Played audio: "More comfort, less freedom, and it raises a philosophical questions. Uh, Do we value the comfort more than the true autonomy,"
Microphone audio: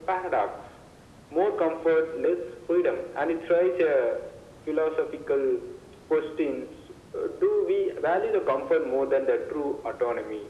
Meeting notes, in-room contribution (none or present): none